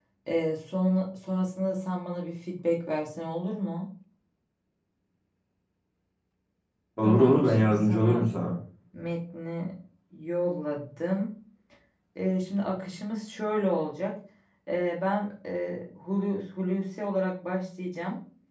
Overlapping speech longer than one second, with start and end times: 7.0-8.3

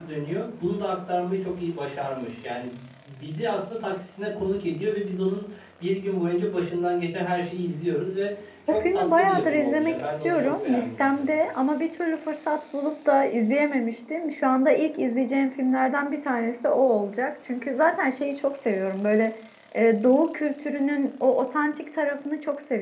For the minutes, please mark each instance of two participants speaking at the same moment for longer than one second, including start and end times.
8.7-11.2

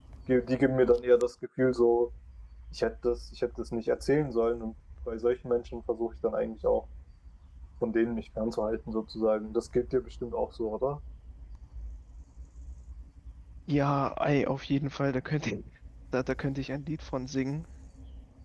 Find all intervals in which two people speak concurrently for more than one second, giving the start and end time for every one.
none

